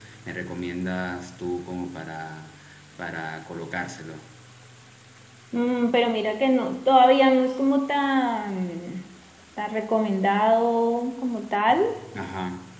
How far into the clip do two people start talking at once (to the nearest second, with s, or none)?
none